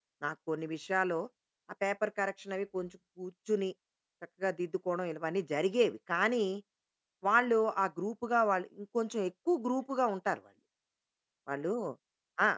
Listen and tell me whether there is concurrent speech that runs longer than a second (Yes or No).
No